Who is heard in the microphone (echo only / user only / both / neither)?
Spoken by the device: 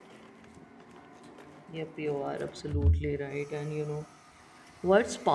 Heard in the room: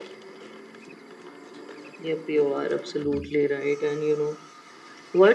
echo only